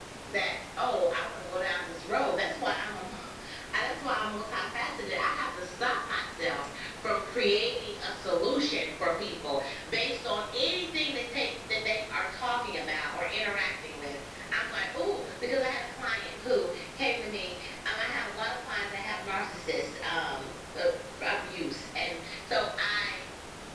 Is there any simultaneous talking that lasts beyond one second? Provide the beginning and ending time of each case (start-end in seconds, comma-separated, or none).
none